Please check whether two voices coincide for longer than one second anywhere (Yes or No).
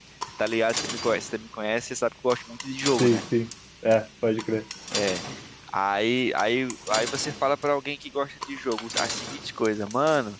No